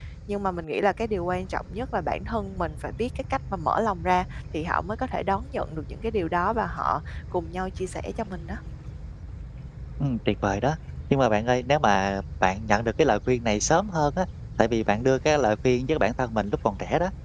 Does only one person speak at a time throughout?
Yes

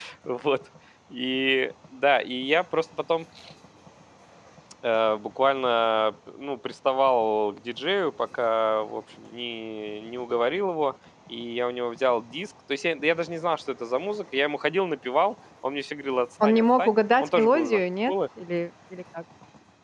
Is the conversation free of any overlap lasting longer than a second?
No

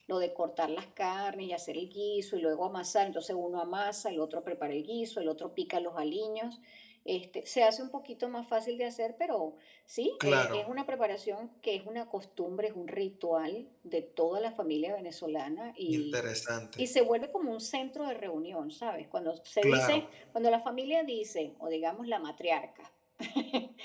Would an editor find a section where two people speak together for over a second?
No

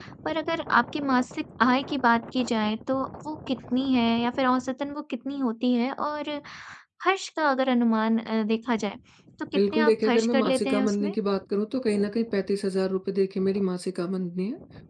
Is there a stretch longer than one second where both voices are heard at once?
Yes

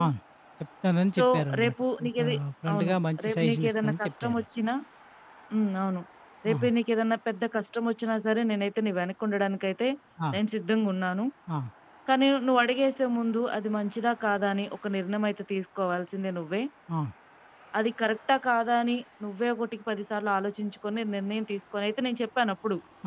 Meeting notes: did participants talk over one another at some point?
Yes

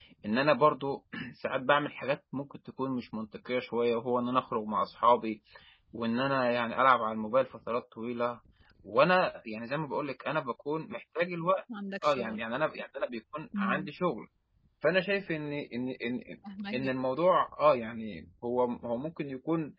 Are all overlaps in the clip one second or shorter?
Yes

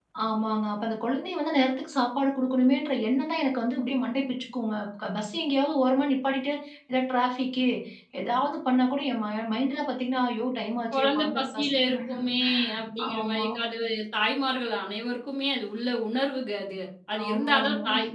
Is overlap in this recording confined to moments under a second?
No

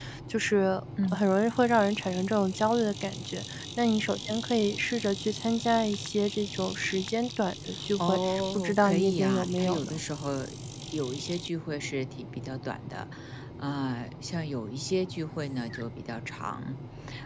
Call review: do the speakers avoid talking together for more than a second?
No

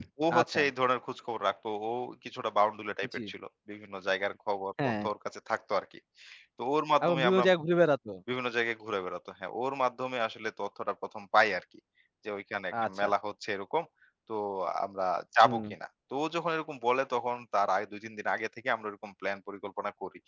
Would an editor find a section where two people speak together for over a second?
No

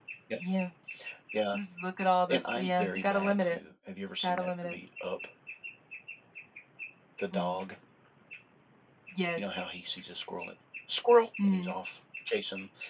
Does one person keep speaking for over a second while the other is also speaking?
Yes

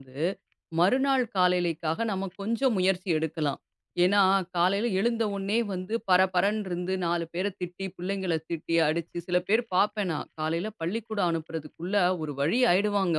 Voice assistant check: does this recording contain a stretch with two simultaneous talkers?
No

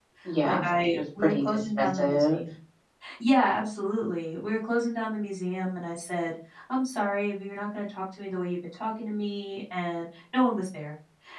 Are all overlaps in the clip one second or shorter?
No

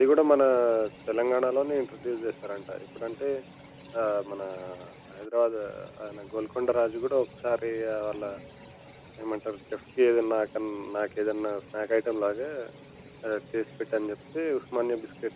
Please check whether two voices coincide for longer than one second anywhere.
No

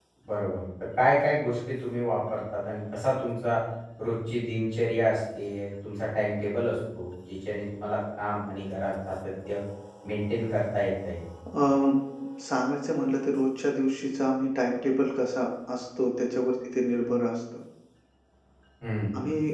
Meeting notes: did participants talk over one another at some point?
No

